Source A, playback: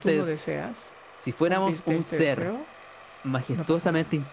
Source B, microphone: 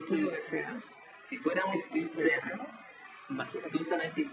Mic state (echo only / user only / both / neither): echo only